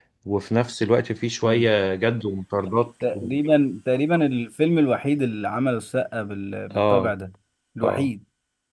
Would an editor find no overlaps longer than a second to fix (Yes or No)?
Yes